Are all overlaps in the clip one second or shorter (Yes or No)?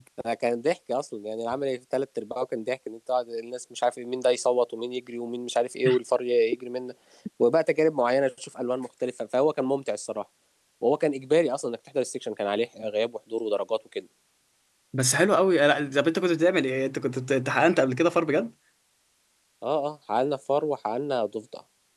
Yes